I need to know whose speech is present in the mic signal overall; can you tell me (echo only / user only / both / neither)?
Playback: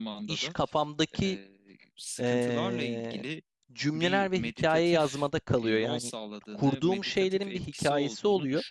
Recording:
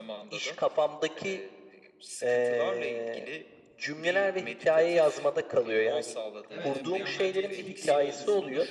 both